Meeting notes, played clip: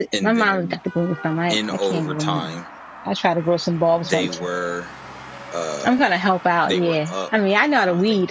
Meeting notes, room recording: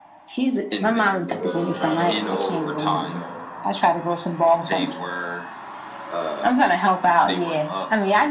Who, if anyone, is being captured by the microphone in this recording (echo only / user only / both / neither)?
both